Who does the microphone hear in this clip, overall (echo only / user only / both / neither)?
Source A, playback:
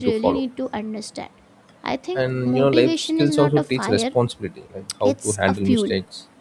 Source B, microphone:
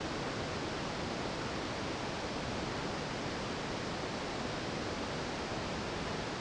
neither